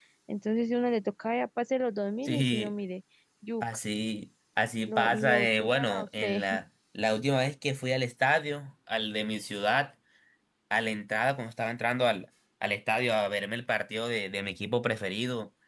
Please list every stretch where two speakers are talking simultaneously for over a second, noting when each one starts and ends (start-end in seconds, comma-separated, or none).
4.8-6.4